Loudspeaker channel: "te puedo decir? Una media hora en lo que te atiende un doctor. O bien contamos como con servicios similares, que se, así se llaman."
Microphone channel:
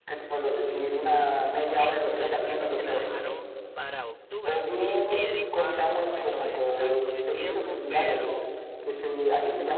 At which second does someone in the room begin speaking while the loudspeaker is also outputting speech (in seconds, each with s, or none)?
1.7 s